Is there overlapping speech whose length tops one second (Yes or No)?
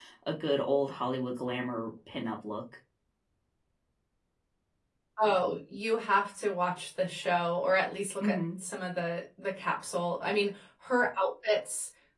No